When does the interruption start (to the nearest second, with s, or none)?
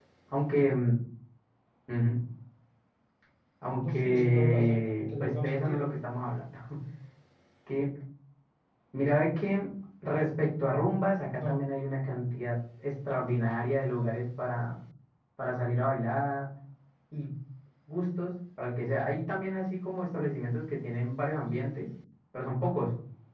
4 s